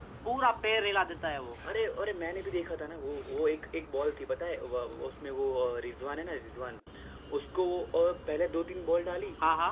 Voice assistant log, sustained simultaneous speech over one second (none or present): none